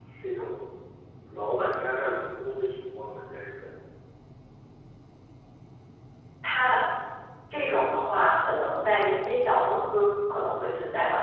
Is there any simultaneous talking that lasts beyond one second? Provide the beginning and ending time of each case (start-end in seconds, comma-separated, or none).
none